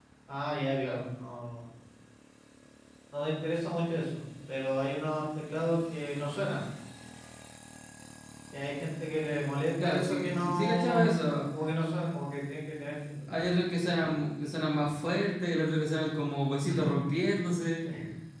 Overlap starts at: 9.8 s

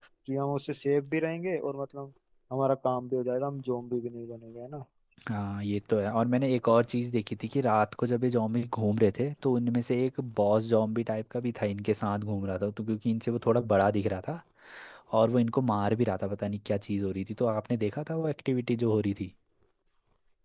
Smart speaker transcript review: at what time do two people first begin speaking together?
none

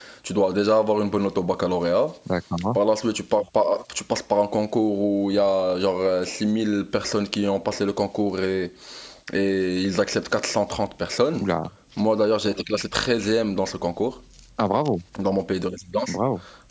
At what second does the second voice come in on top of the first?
none

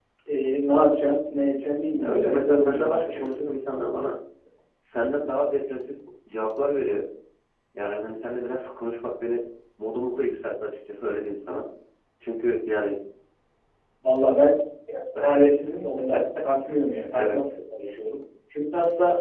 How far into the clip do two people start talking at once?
2.0 s

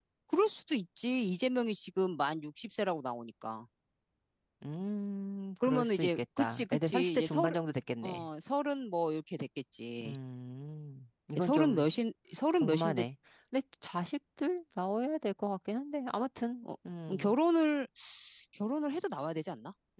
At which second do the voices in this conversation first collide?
5.6 s

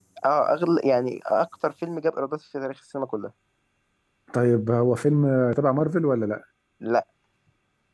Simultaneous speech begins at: none

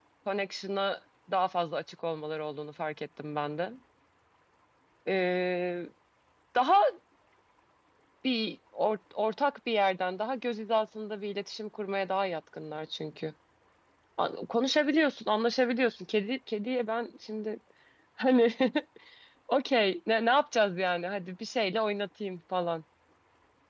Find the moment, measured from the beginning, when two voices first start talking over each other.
none

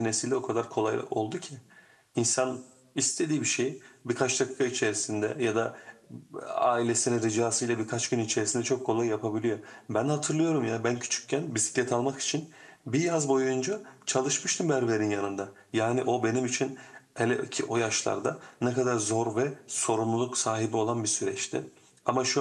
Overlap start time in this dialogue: none

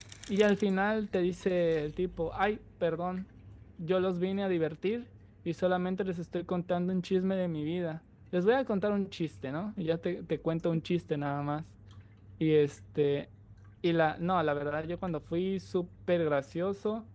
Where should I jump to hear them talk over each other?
none

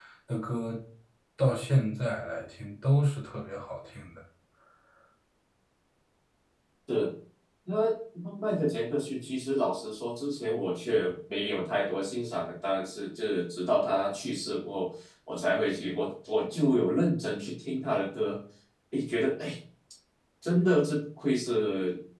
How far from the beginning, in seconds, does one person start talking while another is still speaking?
none

